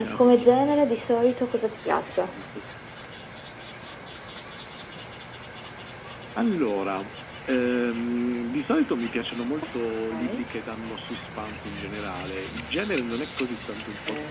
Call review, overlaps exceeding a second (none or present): none